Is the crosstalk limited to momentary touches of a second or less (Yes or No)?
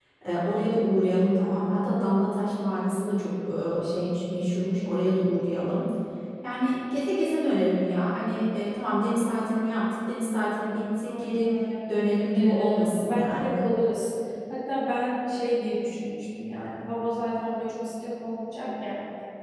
No